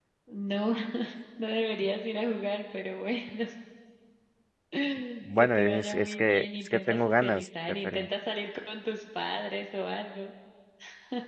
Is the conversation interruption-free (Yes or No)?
No